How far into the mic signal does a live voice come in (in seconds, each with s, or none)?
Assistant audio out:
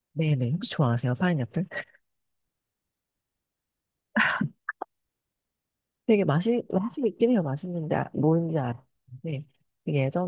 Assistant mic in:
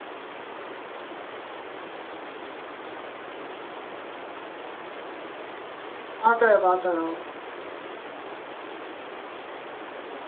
6.1 s